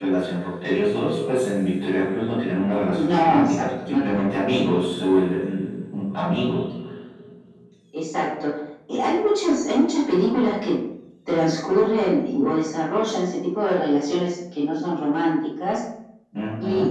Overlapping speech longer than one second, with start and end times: 2.9-4.3

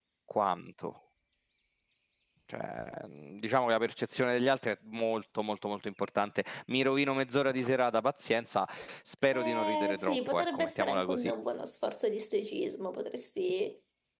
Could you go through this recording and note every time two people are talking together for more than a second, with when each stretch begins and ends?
9.3-11.2

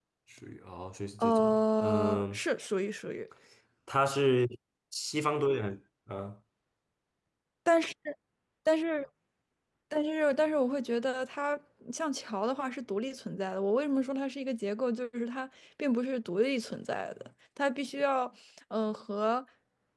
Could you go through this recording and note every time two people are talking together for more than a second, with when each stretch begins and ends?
1.2-2.4

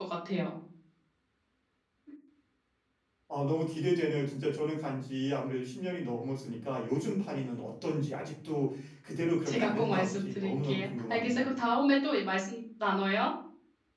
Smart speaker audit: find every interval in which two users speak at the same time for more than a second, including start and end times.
9.5-11.4

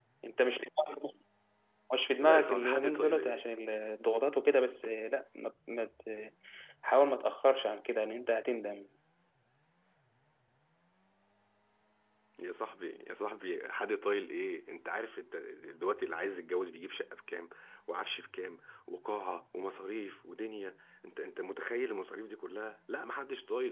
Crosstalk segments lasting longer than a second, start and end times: 2.2-3.4

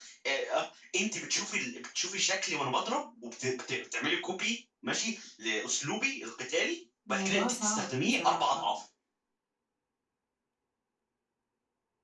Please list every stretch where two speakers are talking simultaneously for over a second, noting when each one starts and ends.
7.1-8.6

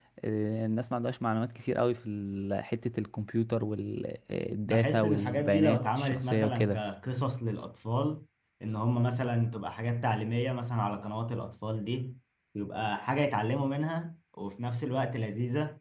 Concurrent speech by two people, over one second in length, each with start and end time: 4.7-6.6

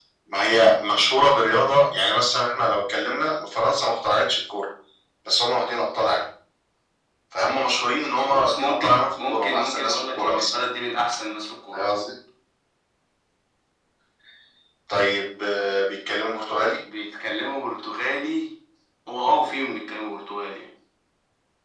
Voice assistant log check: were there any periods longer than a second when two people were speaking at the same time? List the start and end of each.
8.2-10.6

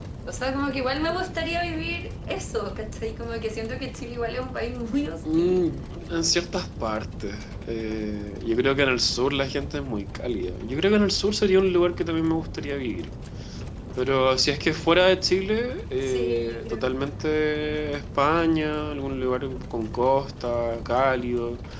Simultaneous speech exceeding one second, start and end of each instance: 16.0-17.3

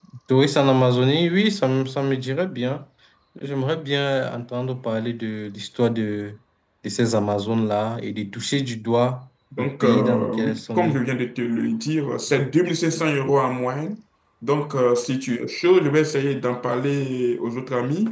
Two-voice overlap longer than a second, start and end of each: 9.6-11.0

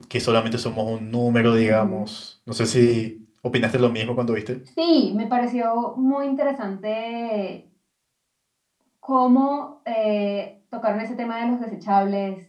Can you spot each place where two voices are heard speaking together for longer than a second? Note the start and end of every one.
none

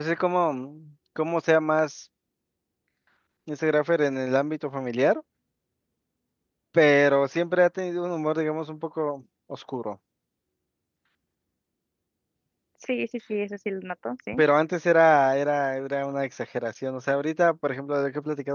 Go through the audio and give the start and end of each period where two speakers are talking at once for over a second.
none

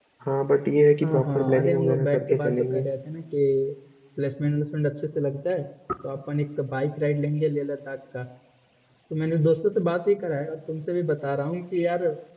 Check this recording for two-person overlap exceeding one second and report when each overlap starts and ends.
1.0-2.8

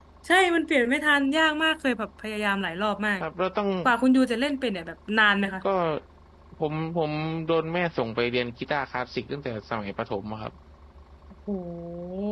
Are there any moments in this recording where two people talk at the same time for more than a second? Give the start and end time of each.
none

